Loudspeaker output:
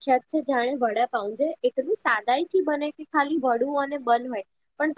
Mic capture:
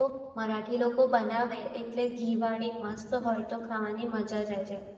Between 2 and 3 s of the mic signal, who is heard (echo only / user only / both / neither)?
user only